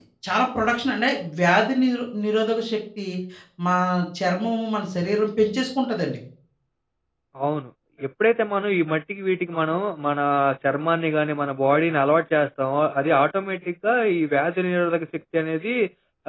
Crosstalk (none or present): none